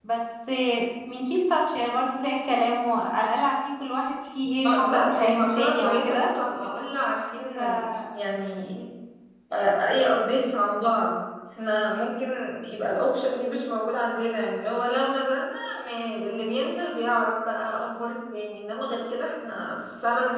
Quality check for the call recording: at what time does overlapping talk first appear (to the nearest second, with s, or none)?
5 s